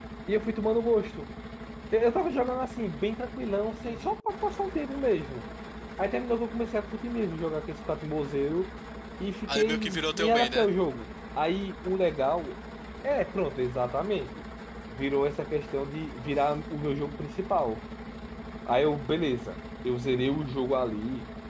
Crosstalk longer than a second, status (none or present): present